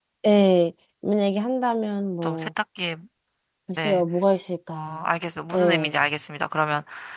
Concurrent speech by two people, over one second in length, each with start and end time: none

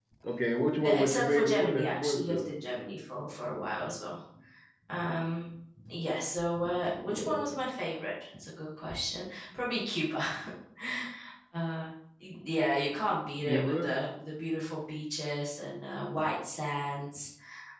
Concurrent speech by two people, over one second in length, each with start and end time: 0.8-2.5

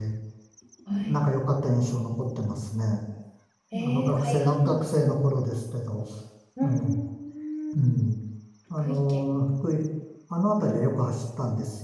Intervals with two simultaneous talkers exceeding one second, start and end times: 3.7-5.1

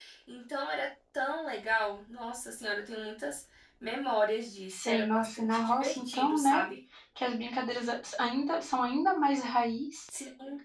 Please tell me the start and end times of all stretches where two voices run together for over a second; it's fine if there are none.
4.7-6.6

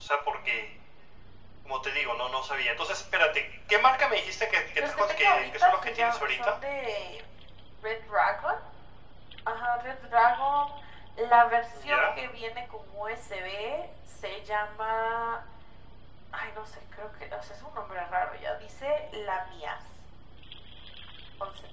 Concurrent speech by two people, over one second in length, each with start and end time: 4.8-6.6

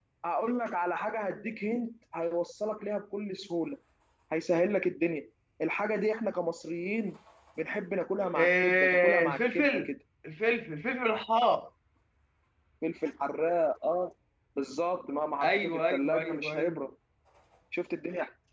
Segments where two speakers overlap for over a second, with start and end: 8.4-9.9, 15.4-16.8

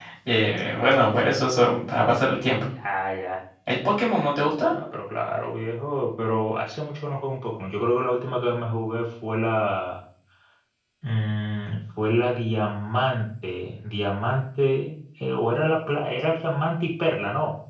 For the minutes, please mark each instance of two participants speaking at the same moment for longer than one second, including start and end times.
none

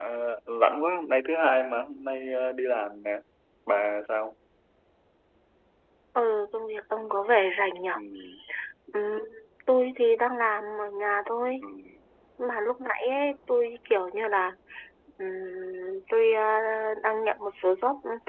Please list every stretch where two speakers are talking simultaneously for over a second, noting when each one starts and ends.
none

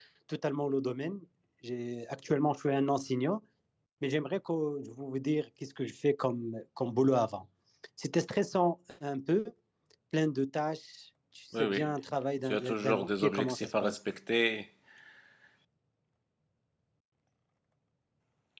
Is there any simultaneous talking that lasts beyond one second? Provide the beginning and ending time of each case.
12.4-14.0

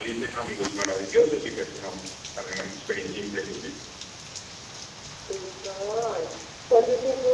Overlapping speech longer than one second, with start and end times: none

